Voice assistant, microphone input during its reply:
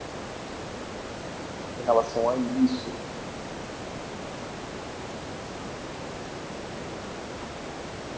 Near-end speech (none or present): present